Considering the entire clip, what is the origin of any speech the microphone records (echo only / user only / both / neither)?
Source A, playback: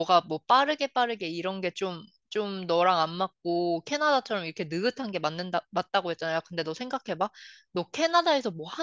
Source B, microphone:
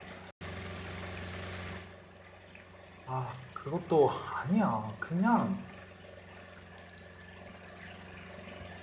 user only